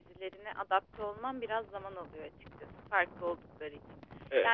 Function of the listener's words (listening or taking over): listening